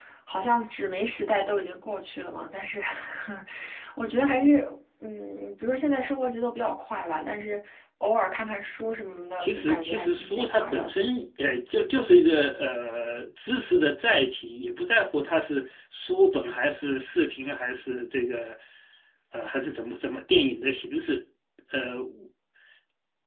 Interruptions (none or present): present